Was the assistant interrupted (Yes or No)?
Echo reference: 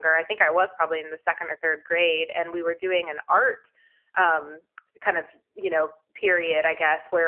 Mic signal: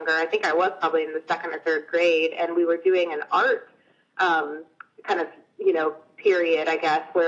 No